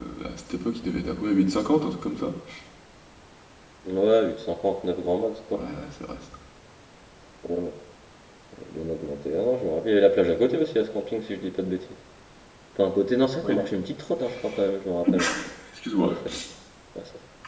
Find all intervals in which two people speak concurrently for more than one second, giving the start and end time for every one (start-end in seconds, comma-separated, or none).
none